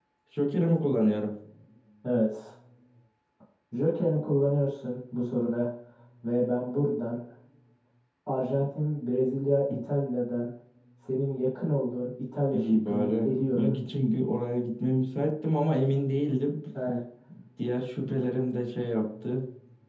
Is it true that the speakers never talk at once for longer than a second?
No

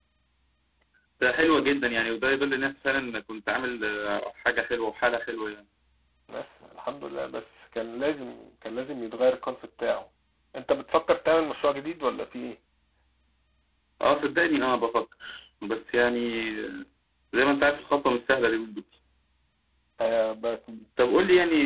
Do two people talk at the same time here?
No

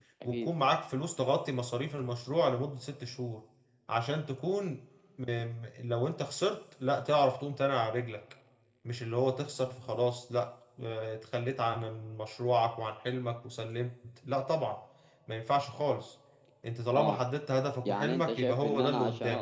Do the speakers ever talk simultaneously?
Yes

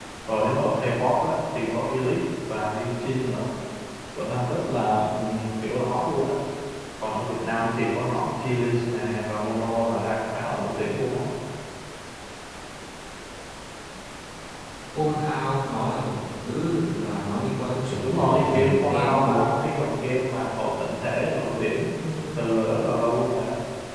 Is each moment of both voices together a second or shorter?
No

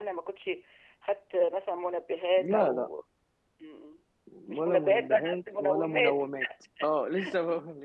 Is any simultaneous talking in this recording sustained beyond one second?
Yes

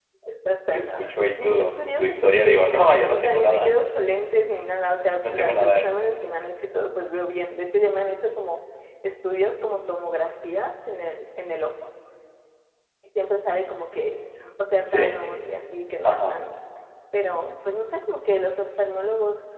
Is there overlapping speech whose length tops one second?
Yes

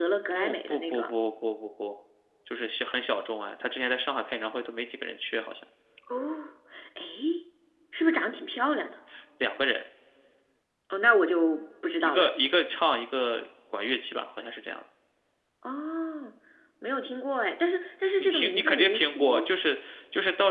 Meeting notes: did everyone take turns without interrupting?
No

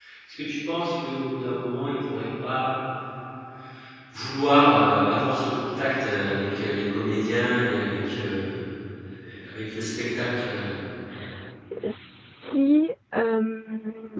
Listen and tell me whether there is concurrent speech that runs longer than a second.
No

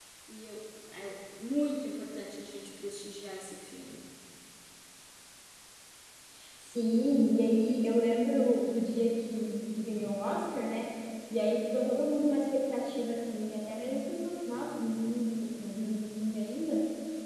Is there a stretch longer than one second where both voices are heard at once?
No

